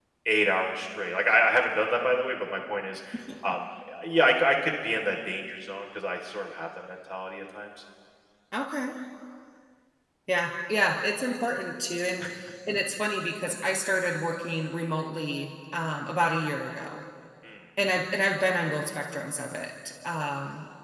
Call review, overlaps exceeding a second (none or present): none